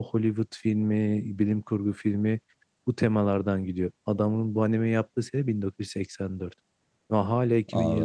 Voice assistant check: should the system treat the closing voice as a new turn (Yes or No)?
No